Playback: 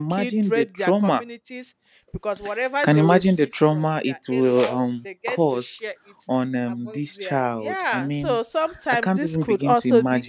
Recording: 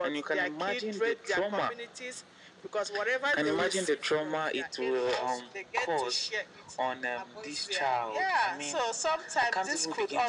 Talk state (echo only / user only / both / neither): echo only